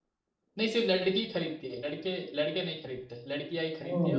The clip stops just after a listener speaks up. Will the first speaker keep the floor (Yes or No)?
No